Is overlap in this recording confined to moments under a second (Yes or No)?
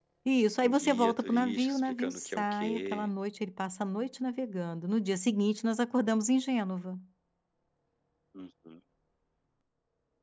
No